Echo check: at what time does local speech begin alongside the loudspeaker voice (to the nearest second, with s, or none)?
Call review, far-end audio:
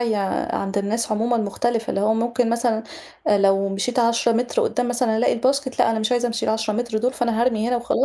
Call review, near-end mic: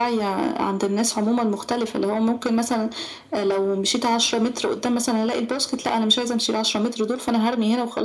none